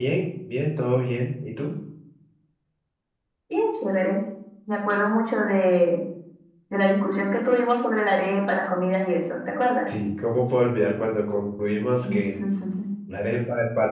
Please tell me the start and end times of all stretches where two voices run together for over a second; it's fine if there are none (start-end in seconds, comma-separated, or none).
none